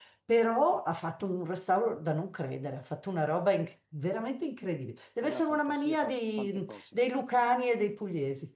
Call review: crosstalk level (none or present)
present